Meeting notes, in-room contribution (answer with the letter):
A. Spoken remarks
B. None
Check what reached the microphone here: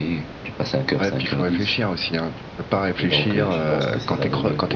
A